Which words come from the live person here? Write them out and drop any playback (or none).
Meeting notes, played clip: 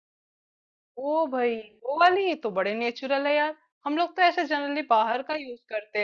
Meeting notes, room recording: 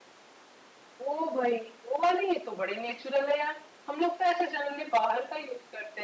none